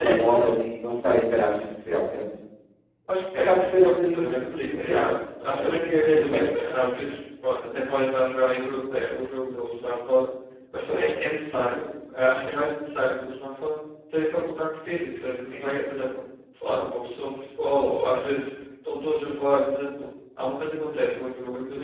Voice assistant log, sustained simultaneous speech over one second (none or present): present